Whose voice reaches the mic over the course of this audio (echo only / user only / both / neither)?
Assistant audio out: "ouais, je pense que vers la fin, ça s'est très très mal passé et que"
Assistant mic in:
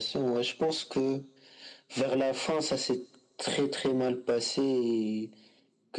echo only